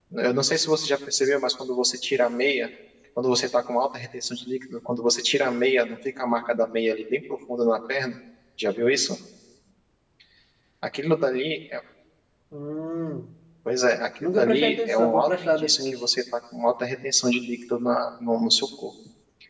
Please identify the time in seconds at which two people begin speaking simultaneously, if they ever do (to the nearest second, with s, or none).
14 s